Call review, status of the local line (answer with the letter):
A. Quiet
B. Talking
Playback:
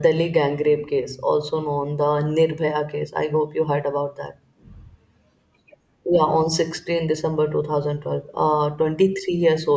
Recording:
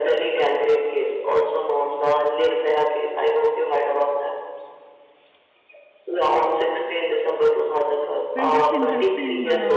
B